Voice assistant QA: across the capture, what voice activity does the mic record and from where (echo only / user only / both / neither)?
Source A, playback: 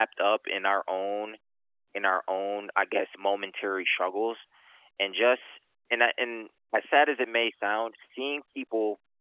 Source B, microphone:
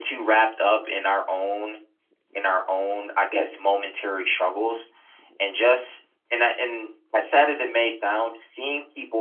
echo only